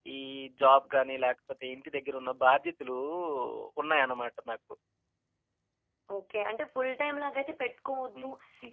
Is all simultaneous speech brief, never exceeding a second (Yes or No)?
Yes